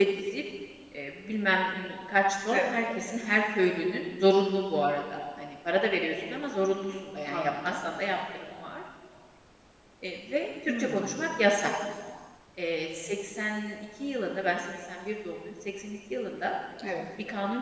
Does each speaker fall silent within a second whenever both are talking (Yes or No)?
Yes